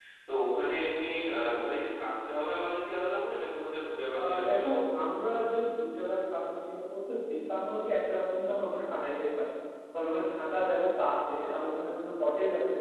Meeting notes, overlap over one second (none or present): present